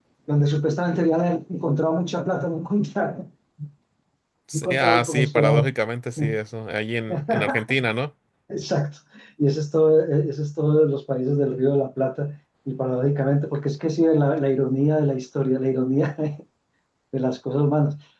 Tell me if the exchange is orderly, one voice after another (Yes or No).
No